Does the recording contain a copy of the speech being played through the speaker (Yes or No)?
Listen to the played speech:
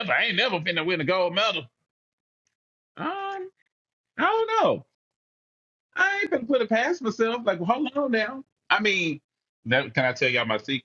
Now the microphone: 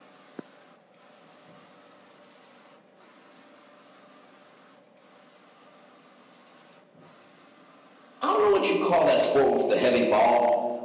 No